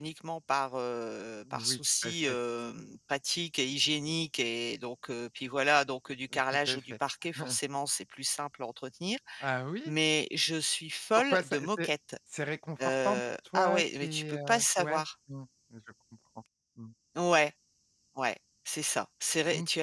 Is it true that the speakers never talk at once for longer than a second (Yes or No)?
No